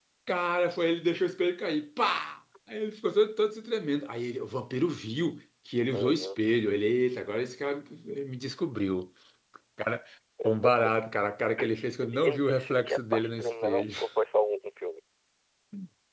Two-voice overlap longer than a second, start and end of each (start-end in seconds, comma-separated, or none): 12.0-13.8